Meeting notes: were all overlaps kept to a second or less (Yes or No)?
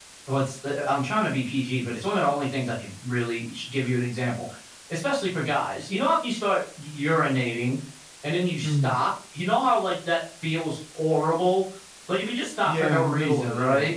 No